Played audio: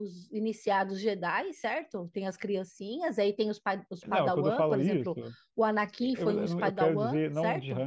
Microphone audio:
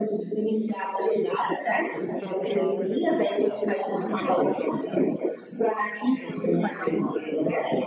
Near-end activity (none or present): present